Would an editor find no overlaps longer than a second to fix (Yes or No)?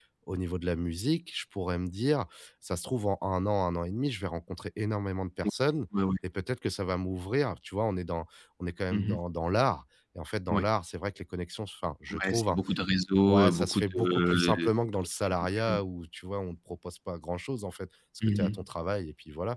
No